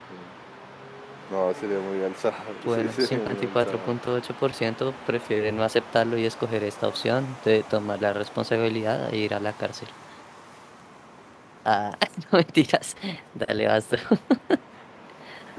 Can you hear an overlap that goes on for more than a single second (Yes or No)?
Yes